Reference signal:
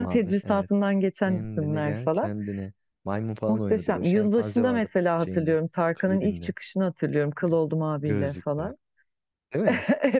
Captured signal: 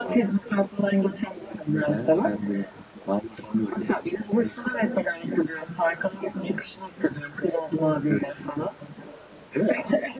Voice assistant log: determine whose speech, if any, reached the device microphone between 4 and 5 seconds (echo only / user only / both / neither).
echo only